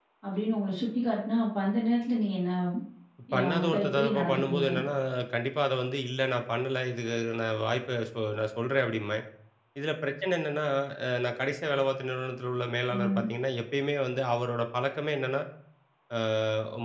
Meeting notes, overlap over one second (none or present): present